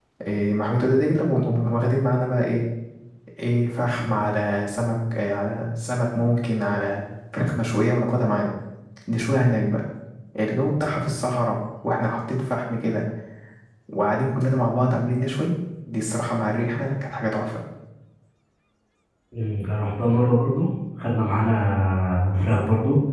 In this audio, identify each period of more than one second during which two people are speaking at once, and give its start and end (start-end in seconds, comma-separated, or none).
none